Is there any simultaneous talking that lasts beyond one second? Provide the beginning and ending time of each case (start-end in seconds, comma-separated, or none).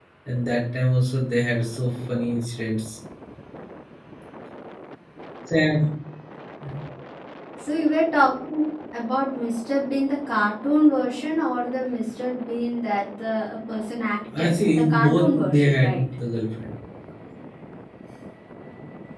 14.4-16.0